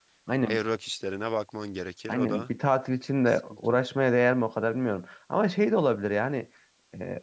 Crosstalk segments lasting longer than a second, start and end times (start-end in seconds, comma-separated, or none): none